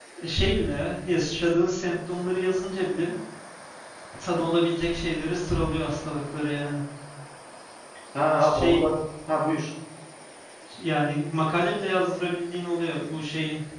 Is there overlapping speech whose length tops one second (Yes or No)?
No